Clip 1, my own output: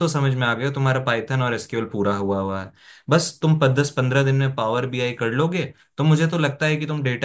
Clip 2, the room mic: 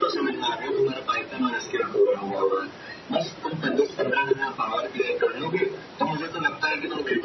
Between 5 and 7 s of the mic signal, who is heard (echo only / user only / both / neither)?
echo only